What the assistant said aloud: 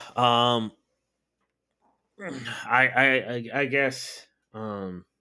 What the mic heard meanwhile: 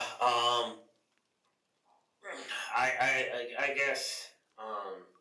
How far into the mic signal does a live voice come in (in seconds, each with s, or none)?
none